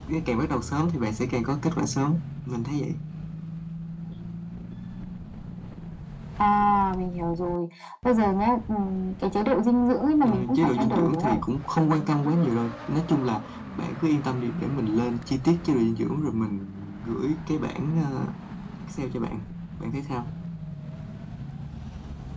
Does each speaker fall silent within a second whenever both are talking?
No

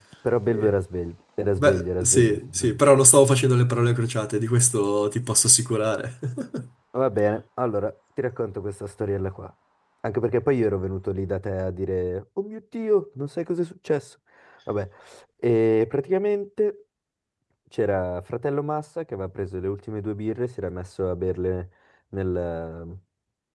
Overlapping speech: Yes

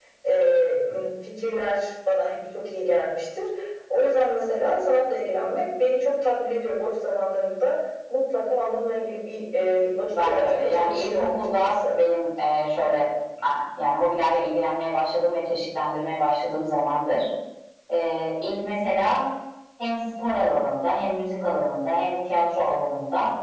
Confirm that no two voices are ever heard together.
No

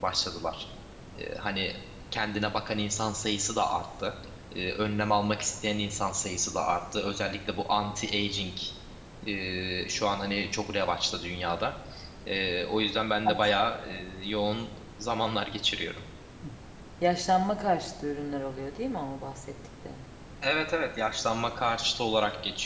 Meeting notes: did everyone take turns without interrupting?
Yes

